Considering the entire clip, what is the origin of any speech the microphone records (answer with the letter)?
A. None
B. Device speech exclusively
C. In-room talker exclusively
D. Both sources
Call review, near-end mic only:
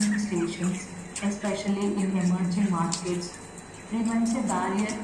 B